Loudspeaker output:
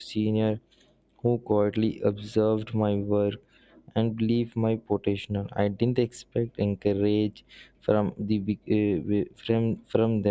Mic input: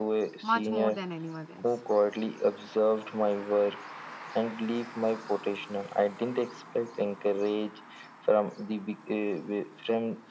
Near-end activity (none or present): present